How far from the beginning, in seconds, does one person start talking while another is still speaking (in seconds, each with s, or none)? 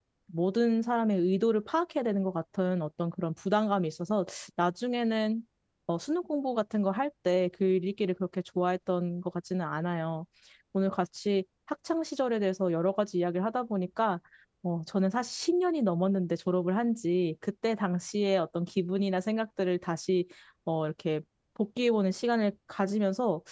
none